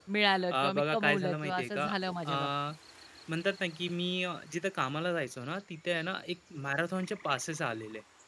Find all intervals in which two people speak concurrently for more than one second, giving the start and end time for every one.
0.5-1.9

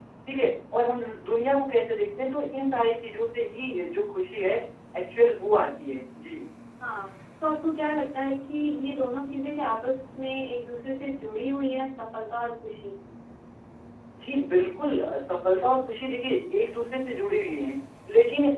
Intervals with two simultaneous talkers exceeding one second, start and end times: none

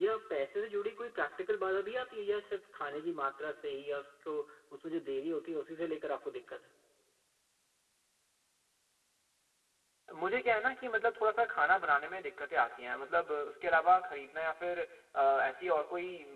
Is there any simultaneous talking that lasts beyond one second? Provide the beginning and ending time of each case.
none

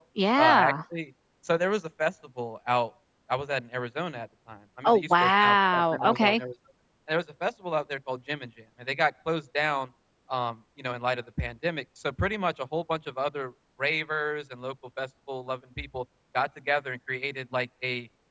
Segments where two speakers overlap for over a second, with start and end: 4.8-6.4

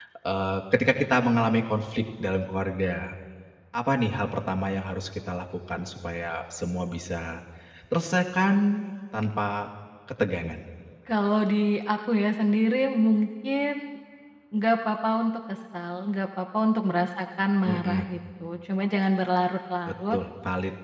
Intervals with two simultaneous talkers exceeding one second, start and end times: none

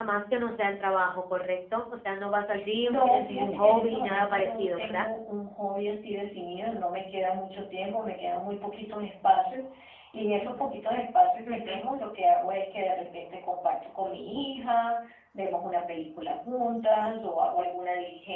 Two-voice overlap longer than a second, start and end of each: 2.8-5.1

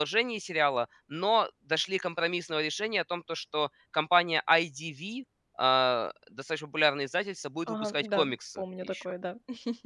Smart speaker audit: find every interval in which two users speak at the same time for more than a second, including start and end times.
7.7-9.0

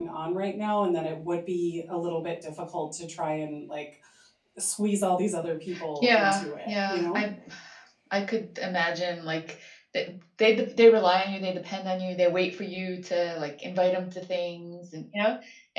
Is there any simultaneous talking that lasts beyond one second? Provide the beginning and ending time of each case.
6.0-7.2

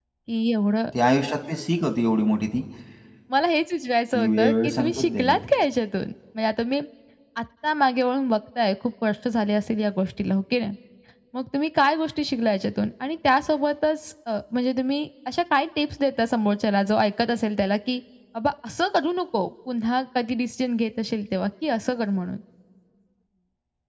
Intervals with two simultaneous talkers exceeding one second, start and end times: 4.1-5.4

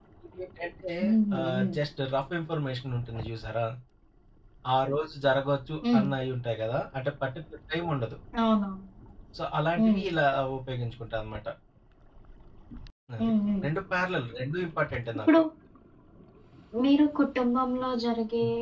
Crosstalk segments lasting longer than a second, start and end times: none

